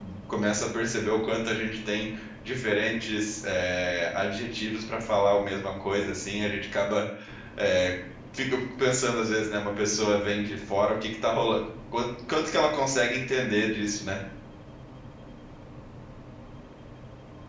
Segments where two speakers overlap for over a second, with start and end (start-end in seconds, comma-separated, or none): none